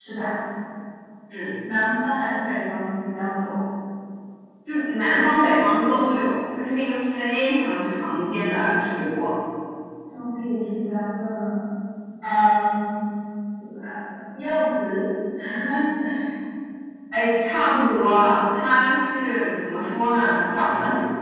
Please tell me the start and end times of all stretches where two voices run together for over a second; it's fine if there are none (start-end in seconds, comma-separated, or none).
none